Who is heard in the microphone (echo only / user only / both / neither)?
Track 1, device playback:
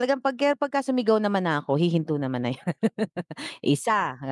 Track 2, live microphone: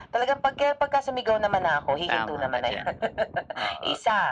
both